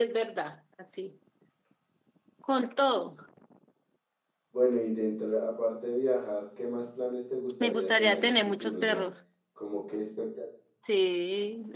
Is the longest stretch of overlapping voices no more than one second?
No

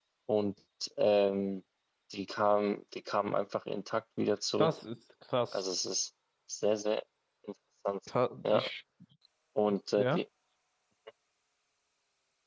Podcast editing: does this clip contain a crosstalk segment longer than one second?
No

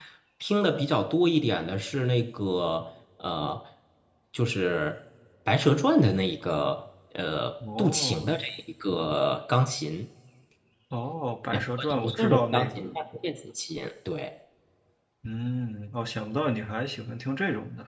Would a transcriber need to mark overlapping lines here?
Yes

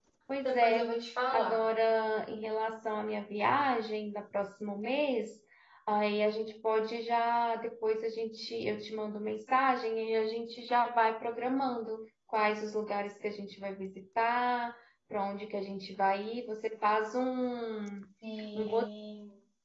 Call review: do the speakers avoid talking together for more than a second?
Yes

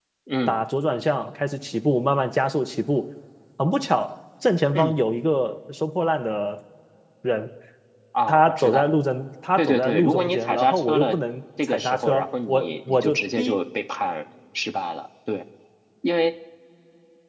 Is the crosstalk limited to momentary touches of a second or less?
No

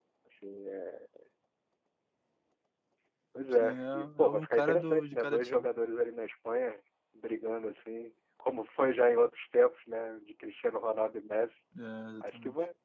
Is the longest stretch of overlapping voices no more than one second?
No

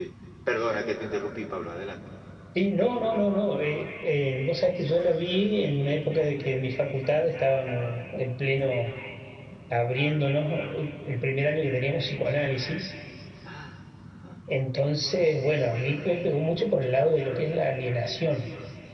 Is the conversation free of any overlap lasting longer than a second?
Yes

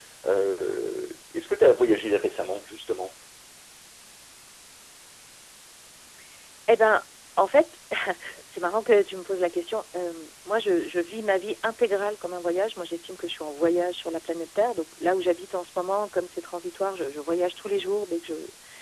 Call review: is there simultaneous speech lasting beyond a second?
No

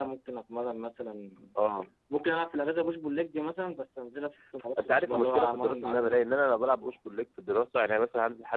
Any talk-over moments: Yes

